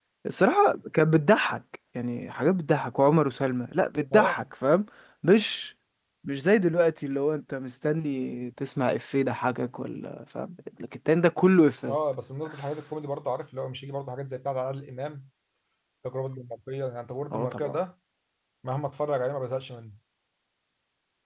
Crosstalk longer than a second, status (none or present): none